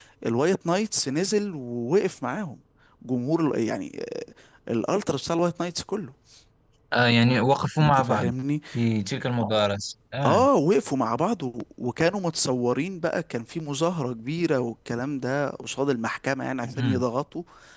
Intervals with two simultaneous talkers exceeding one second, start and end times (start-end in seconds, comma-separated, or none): none